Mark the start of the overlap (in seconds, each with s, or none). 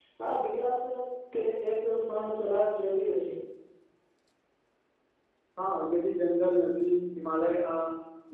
none